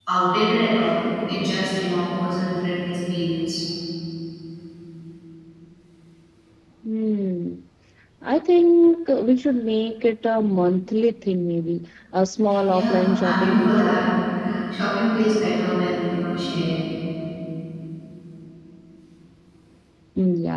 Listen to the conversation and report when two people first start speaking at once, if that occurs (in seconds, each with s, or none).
12.7 s